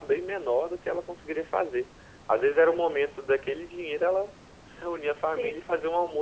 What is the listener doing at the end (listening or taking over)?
listening